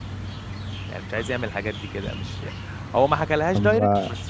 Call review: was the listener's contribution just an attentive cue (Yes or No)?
Yes